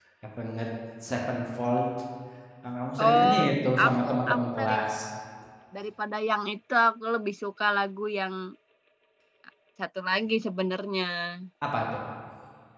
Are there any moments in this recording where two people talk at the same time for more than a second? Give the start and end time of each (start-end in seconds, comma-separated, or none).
3.0-4.8